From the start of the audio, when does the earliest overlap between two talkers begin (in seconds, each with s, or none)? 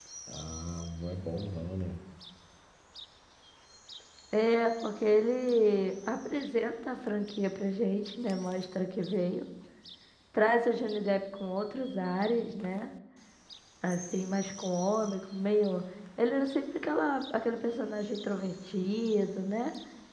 none